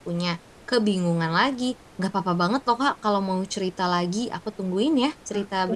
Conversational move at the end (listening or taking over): taking over